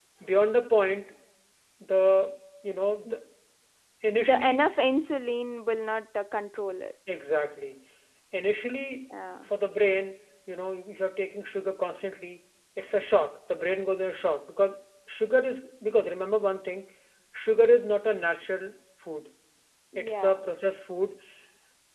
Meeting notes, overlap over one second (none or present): none